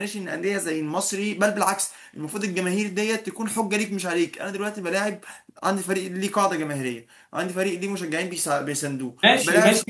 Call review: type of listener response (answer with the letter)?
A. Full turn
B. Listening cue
A